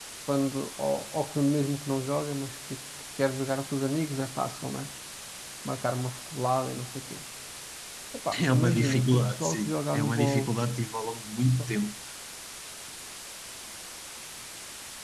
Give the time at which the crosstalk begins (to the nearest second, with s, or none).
9 s